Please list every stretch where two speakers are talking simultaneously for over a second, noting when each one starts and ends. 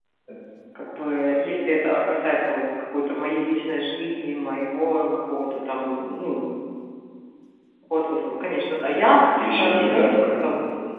9.0-10.4

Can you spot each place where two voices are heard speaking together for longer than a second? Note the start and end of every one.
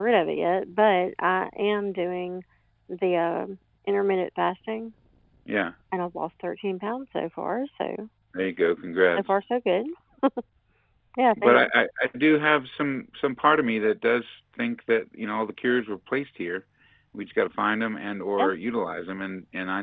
none

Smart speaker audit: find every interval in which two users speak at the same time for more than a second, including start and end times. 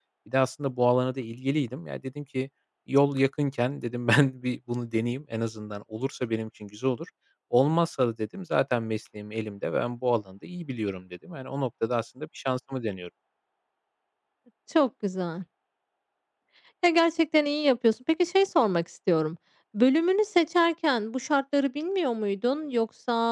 none

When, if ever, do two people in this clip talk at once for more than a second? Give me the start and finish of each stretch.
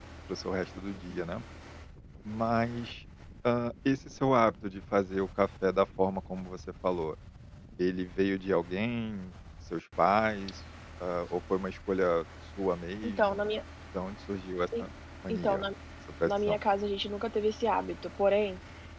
none

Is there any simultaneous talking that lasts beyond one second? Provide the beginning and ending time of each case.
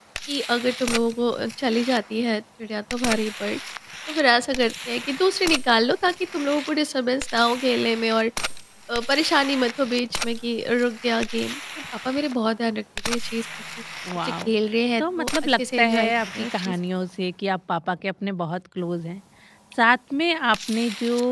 15.0-16.7

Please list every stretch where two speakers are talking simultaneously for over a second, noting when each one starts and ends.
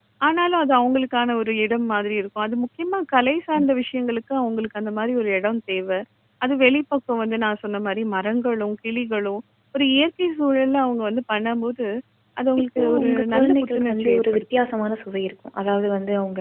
12.8-14.4

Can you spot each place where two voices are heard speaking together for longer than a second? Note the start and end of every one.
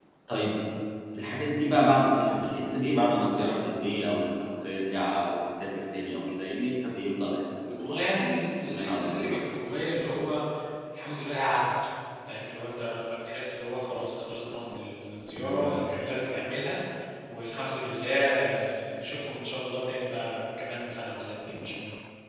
7.8-9.4

